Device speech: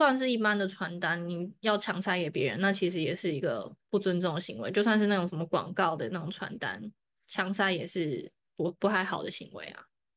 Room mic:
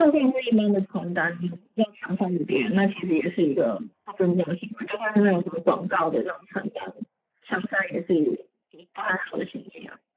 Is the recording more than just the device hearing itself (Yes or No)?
No